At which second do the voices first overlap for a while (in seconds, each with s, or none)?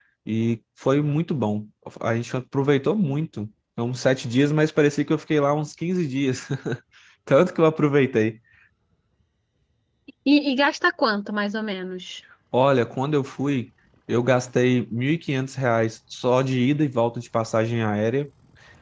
none